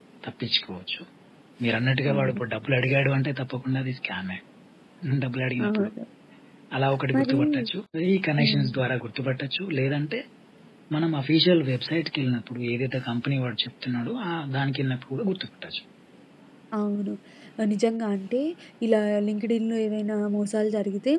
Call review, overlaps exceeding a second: none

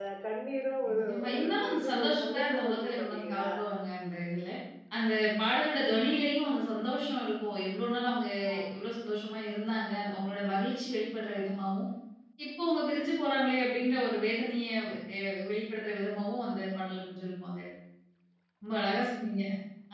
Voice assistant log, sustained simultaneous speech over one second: present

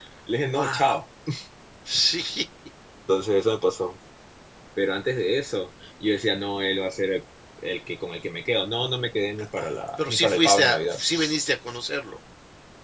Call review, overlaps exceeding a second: present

